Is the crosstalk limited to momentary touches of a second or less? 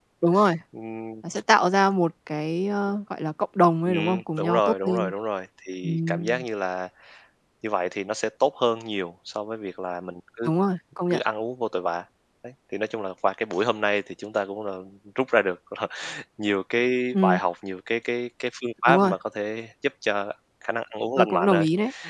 No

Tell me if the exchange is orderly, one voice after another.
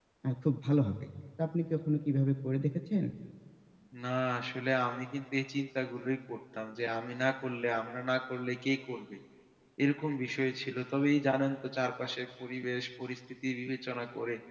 Yes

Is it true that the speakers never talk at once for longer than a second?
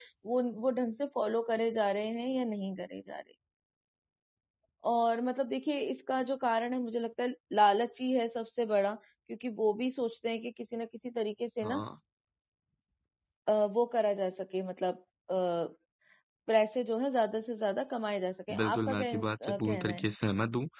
No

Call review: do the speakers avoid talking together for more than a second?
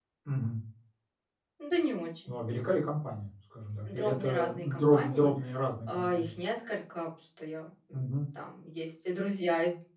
No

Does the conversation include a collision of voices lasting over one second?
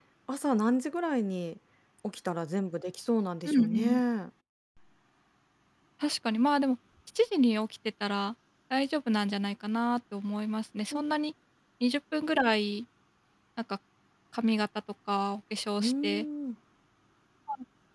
No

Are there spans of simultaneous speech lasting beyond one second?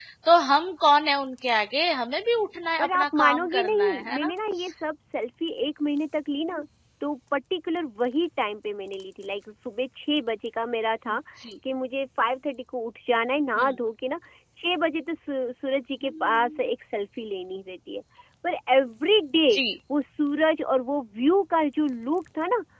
Yes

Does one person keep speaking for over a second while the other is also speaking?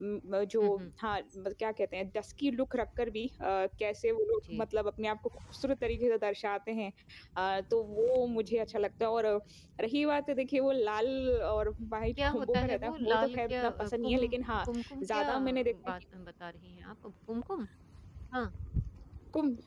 Yes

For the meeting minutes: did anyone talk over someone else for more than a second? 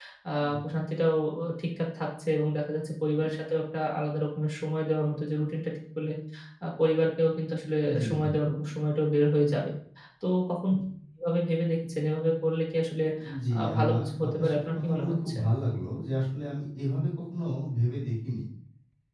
Yes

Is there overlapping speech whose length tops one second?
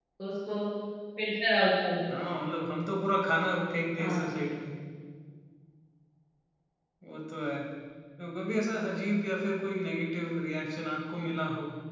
No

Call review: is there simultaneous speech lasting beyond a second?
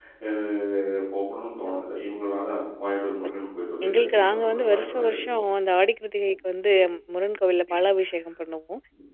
Yes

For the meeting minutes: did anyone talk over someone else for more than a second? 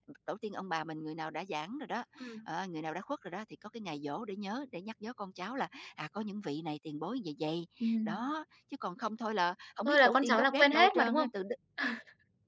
Yes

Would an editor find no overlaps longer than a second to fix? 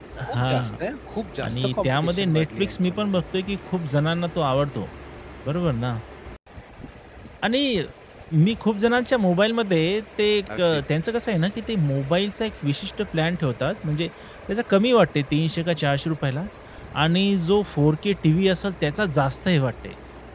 No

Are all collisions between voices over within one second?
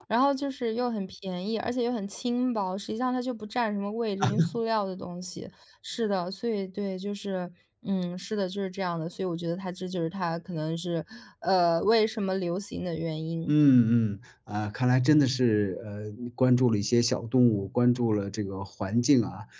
Yes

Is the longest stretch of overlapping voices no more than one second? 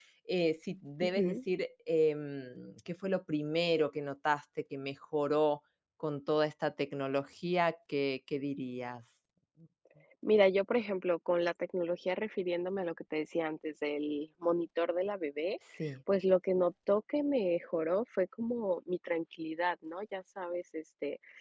Yes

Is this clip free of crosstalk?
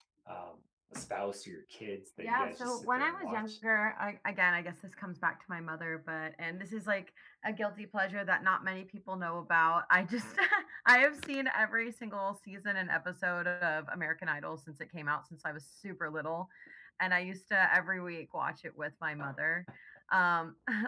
No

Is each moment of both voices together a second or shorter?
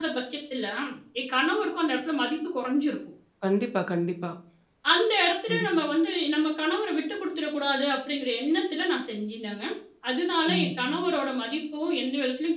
Yes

